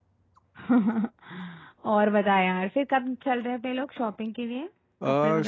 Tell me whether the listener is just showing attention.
No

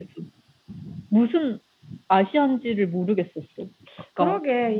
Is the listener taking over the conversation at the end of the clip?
Yes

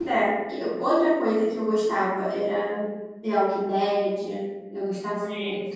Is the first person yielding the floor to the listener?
No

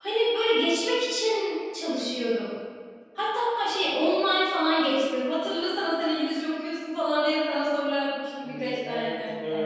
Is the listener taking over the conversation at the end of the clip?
Yes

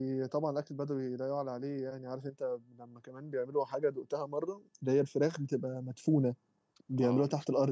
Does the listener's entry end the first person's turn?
Yes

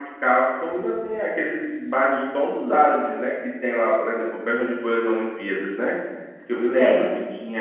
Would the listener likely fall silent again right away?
Yes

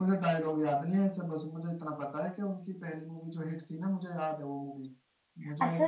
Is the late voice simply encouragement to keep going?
No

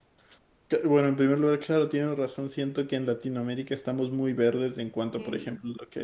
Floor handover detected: No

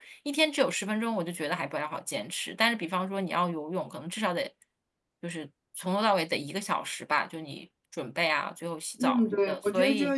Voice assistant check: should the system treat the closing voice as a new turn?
Yes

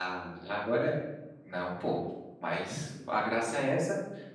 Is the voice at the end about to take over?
No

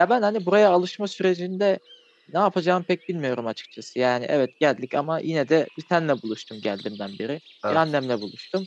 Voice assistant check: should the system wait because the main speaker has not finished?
Yes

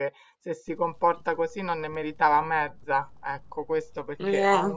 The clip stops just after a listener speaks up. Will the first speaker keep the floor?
Yes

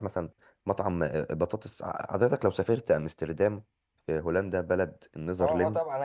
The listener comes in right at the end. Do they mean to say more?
Yes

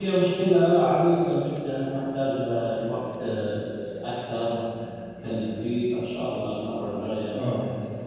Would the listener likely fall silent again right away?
No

